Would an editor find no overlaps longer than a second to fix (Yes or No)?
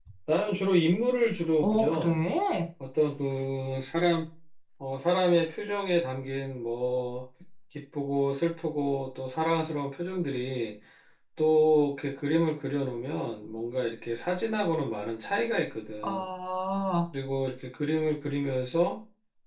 Yes